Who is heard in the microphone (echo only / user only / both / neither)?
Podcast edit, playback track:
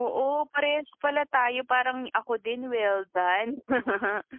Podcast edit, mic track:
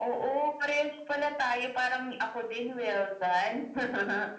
echo only